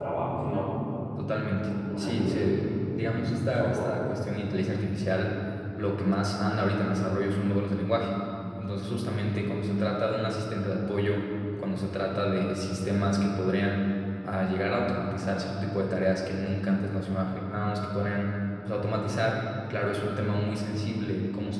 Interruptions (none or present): present